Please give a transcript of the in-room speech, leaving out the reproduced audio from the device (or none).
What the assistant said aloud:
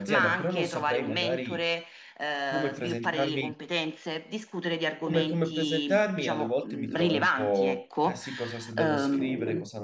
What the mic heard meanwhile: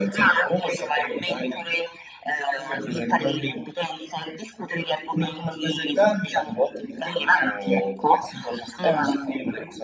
mm,